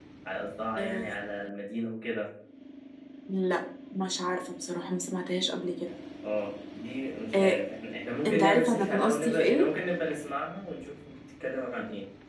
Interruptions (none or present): present